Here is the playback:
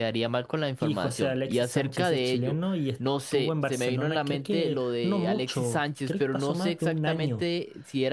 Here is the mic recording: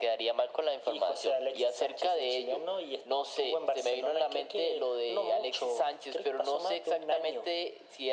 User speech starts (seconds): none

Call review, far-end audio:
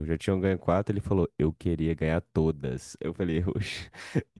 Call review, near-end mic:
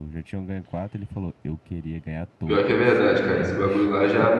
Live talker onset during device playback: 2 s

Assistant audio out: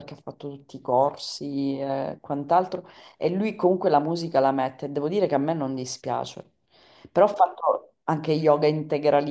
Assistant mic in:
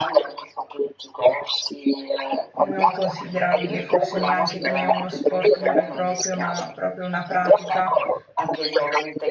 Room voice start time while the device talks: 3 s

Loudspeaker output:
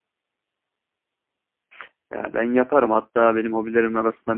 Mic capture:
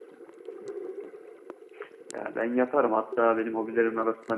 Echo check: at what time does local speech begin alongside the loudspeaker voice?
none

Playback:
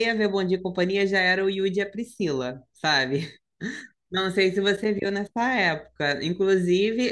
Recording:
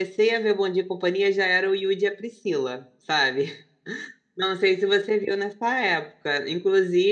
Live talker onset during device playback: none

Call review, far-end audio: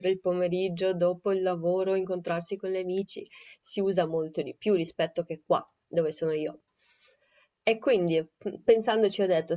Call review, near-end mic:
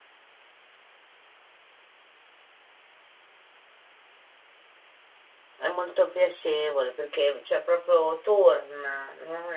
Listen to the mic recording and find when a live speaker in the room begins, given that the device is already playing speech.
6 s

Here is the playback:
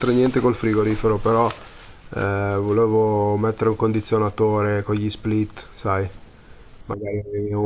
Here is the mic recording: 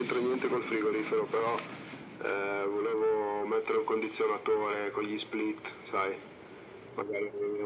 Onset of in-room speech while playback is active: none

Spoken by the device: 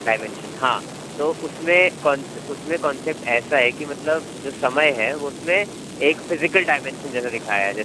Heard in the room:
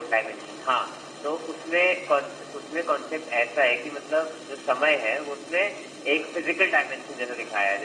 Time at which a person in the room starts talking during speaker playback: none

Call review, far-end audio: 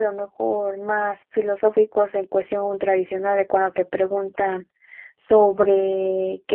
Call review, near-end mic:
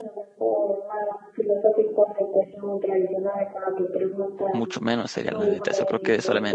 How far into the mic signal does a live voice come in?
5 s

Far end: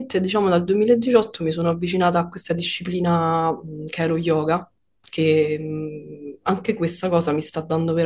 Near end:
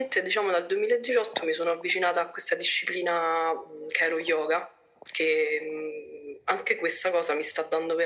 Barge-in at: none

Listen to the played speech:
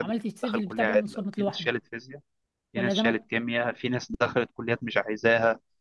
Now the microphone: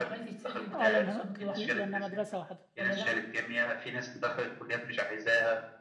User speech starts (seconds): 1 s

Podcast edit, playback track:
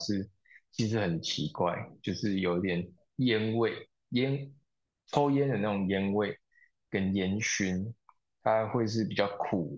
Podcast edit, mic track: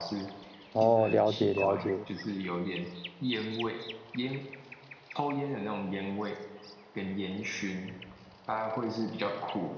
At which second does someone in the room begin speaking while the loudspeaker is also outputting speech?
1 s

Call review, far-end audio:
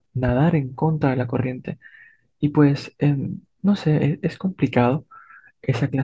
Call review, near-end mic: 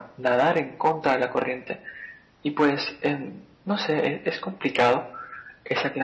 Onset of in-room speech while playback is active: none

